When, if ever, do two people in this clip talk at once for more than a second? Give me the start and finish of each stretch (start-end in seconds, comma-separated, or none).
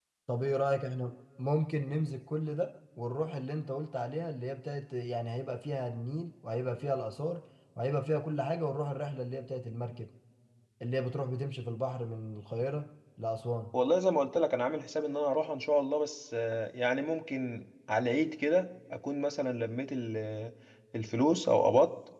none